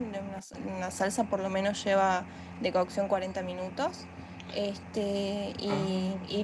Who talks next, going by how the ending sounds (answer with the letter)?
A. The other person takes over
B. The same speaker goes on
B